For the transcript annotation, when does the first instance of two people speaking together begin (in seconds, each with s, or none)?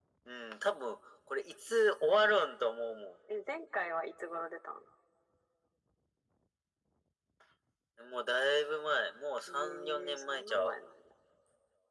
9.5 s